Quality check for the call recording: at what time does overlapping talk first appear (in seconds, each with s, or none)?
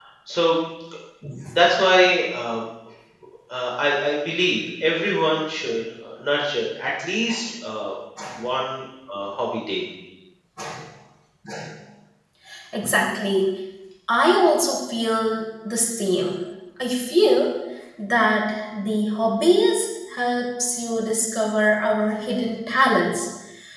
none